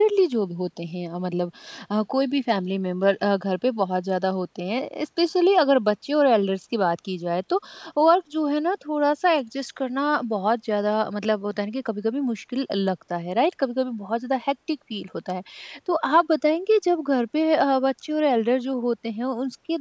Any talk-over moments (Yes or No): No